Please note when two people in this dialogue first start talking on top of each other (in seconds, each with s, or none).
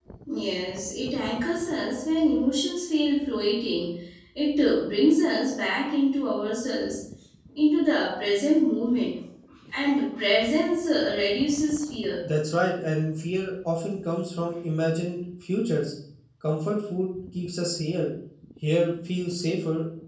none